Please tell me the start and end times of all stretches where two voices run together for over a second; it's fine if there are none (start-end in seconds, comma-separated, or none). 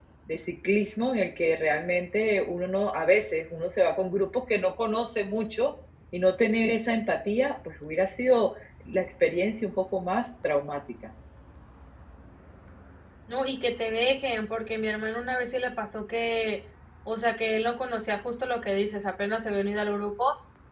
none